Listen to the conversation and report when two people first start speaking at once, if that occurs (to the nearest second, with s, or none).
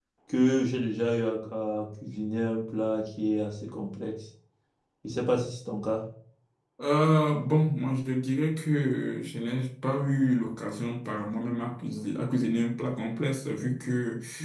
none